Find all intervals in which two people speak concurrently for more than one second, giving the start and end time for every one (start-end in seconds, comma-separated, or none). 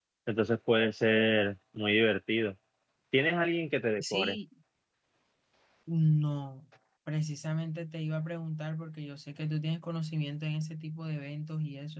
none